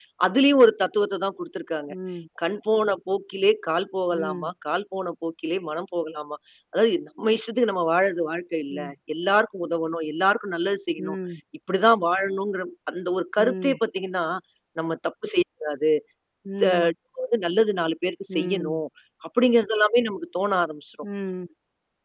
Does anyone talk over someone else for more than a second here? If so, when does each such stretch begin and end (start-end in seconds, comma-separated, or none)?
none